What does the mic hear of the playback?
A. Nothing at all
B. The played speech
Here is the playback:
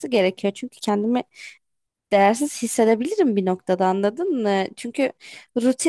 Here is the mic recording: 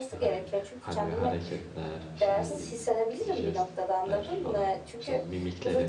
B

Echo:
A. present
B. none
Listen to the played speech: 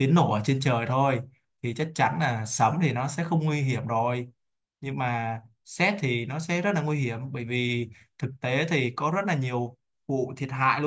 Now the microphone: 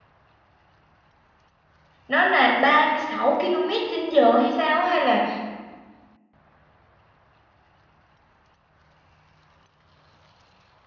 B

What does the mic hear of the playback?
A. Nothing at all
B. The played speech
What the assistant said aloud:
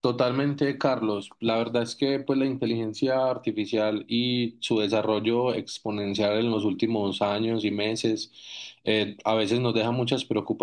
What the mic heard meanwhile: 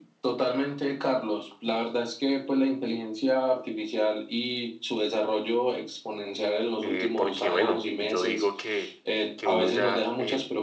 B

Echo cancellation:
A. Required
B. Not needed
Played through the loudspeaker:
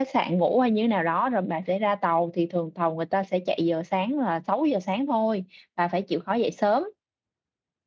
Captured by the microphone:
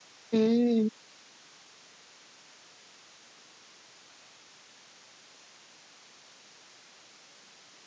B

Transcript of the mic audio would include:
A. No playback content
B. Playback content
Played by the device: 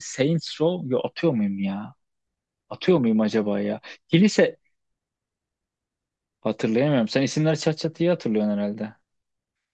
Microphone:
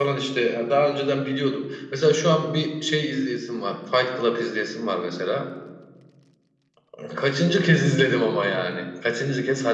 A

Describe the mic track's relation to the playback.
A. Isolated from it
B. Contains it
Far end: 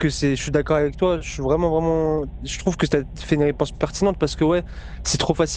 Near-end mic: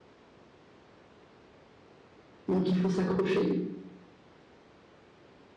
A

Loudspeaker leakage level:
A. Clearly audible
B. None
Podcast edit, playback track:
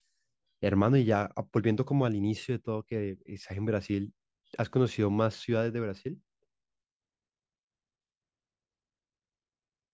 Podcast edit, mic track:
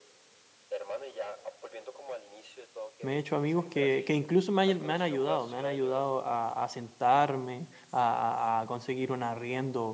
A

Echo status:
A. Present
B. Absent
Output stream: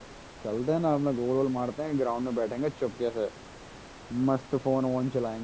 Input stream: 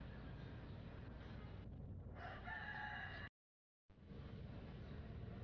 B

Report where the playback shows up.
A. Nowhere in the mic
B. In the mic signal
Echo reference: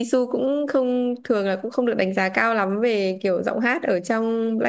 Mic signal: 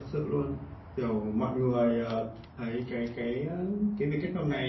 A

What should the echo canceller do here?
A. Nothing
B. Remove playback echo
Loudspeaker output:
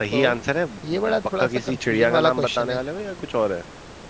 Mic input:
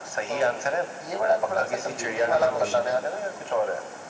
B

